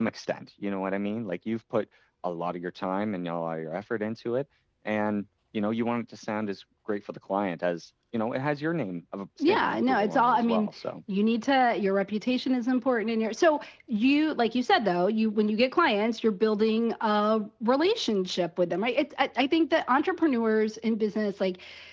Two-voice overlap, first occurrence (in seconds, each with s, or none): 9.4 s